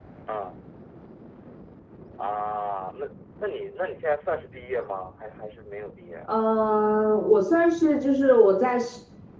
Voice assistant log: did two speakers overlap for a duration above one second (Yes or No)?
No